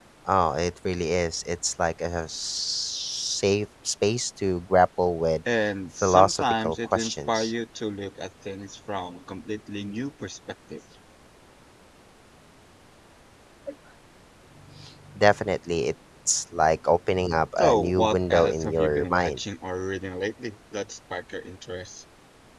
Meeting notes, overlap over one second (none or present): present